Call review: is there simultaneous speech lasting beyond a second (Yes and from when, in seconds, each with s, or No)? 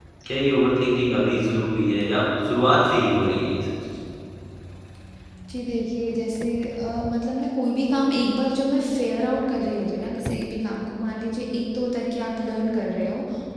No